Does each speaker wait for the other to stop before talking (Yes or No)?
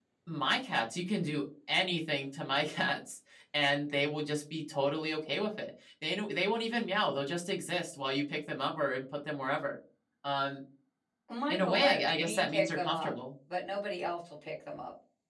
No